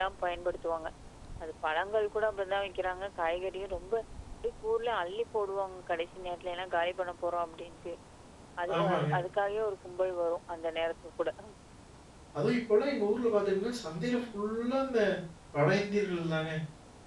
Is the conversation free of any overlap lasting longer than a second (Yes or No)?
Yes